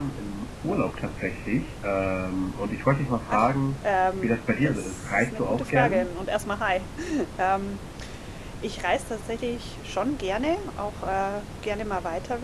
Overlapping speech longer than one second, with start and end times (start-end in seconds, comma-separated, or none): 4.2-6.1